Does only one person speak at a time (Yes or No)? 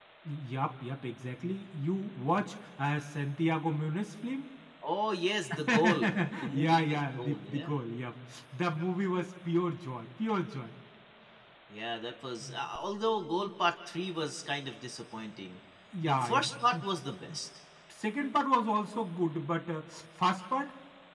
No